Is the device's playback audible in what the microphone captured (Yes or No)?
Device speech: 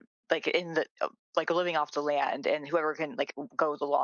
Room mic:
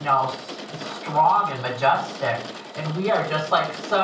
No